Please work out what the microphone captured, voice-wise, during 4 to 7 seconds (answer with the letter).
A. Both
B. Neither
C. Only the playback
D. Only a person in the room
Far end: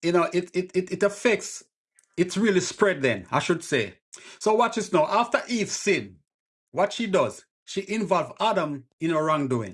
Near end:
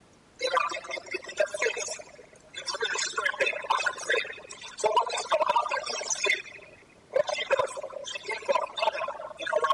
C